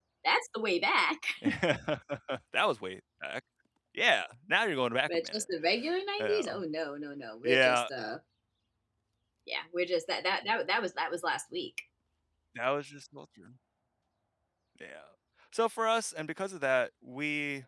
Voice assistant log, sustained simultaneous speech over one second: none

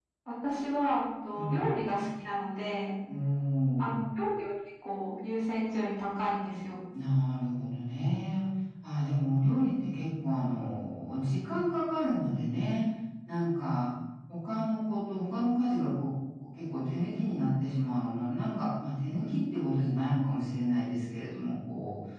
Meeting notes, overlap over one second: none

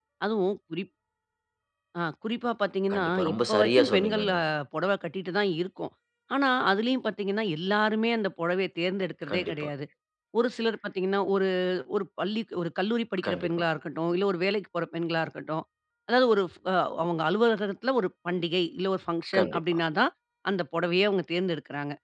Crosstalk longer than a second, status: present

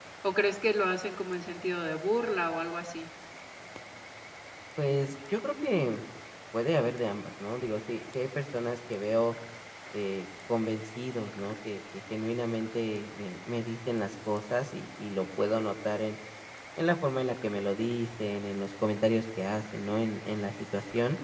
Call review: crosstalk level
none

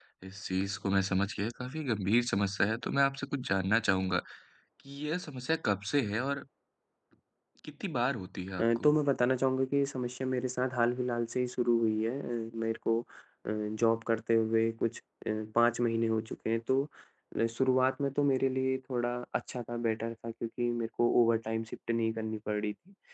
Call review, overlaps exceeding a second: none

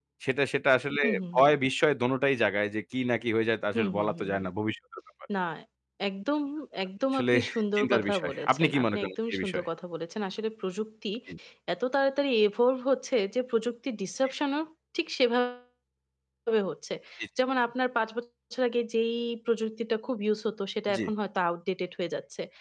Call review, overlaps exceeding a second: present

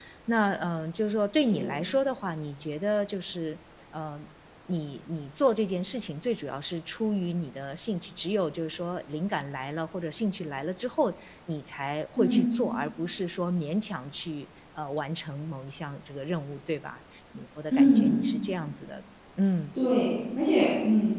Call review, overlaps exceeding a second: none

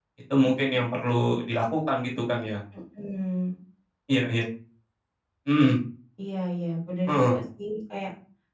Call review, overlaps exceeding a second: none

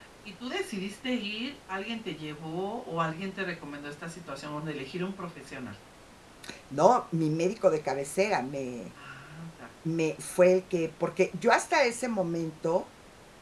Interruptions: none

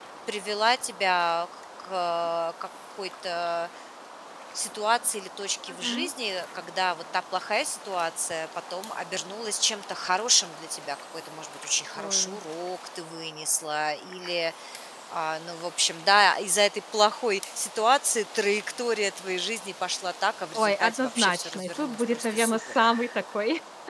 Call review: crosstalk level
present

